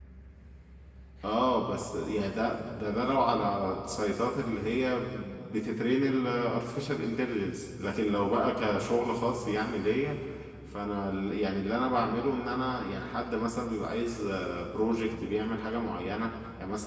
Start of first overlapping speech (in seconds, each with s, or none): none